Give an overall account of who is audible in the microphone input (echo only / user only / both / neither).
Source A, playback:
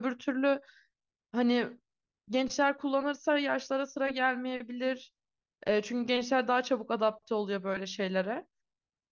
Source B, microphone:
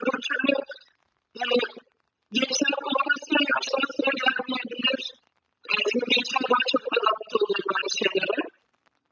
echo only